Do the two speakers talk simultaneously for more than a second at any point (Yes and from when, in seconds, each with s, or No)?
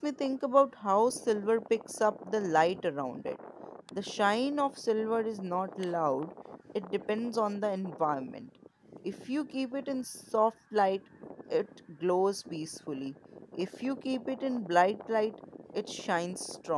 No